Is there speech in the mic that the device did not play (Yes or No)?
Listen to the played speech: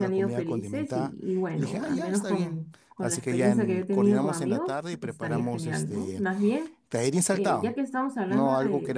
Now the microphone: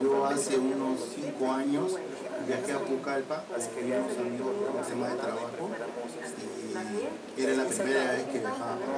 Yes